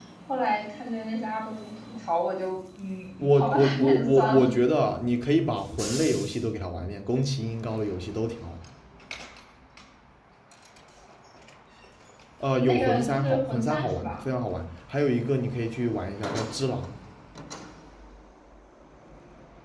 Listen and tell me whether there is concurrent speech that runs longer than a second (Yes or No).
Yes